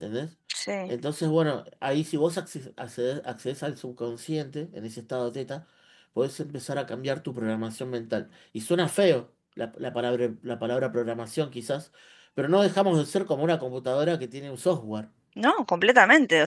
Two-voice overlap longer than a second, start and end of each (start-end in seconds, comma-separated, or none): none